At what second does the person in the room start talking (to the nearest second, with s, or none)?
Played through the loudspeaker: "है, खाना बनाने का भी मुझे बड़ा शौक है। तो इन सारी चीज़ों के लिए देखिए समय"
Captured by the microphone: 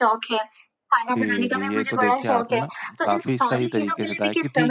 1 s